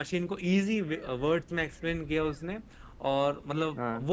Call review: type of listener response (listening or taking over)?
listening